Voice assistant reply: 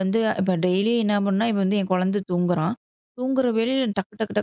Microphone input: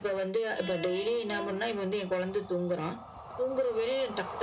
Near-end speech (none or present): none